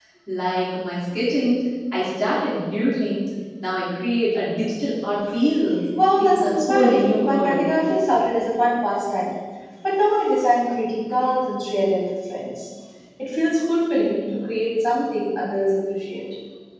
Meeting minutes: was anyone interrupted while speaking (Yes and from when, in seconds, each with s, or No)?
Yes, from 6.2 s